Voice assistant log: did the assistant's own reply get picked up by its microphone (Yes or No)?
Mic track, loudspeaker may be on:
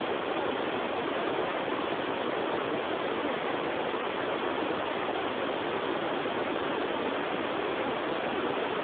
No